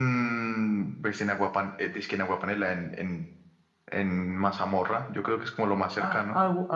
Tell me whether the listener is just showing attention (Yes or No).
No